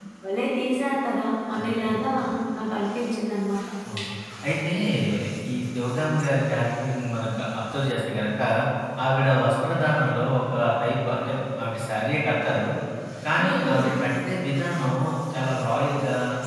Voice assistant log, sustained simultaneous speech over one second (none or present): none